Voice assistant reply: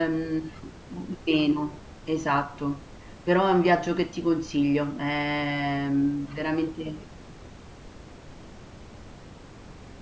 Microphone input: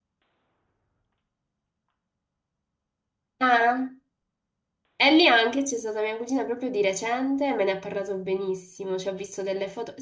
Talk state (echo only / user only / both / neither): user only